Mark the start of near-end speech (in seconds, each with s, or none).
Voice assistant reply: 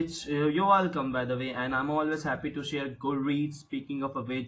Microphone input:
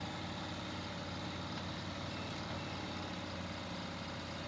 none